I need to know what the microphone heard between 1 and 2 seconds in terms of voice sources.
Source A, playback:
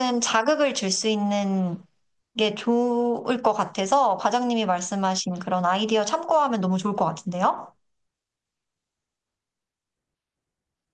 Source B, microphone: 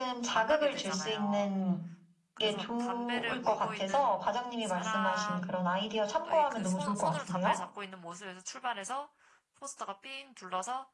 both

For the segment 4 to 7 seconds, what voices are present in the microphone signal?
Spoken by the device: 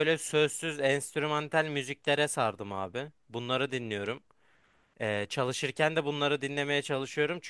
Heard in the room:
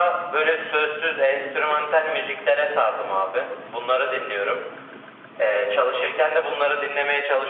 echo only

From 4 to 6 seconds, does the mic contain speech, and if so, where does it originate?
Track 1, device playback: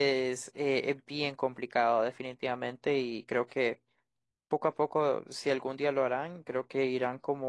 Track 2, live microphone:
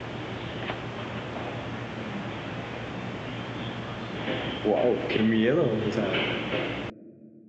user only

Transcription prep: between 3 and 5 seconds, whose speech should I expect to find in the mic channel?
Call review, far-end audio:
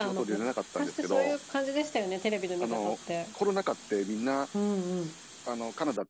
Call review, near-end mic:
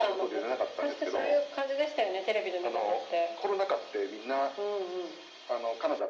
echo only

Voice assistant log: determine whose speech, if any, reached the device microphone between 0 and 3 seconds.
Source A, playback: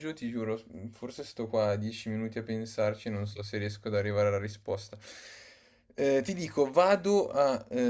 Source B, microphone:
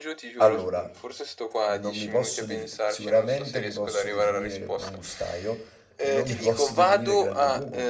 both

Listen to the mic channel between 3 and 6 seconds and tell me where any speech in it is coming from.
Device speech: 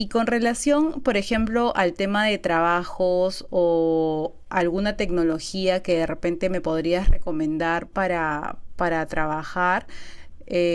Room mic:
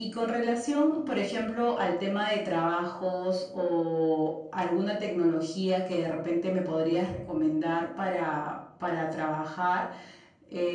echo only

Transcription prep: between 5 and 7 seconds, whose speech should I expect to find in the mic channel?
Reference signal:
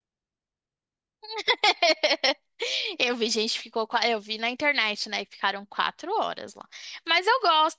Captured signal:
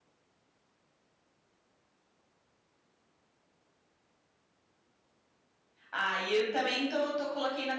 user only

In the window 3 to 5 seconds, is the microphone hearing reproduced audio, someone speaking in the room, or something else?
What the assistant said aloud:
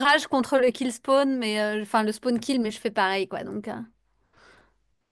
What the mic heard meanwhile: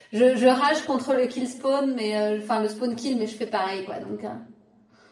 echo only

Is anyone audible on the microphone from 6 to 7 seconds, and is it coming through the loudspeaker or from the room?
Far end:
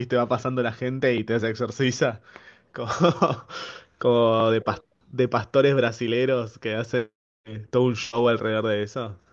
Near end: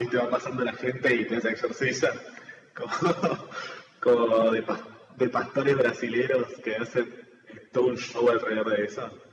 echo only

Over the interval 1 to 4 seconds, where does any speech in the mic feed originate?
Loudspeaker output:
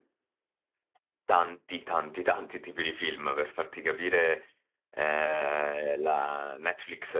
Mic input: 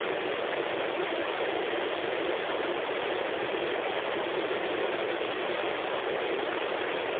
neither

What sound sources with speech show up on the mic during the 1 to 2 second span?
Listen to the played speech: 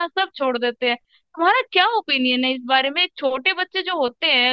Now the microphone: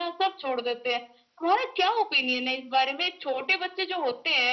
echo only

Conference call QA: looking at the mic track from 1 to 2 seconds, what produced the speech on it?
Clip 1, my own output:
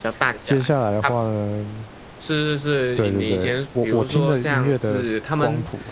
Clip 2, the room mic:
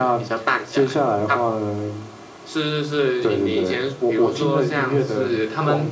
echo only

